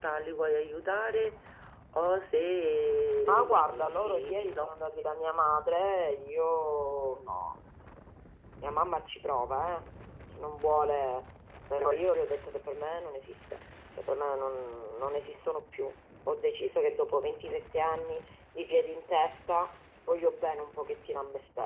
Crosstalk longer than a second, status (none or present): present